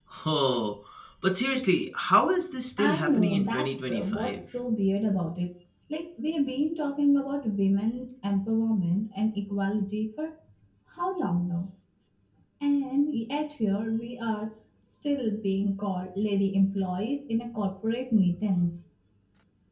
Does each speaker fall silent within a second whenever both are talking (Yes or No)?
No